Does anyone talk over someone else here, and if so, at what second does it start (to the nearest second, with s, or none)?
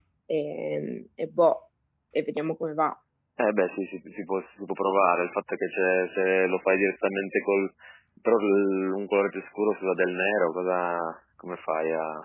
none